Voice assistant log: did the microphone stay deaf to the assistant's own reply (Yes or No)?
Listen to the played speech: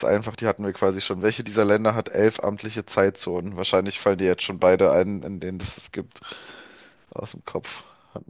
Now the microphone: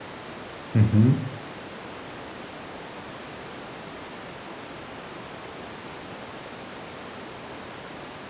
Yes